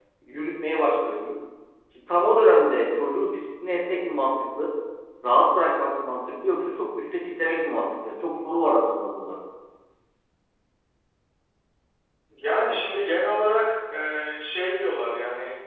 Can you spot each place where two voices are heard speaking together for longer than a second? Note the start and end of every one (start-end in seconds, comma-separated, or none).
none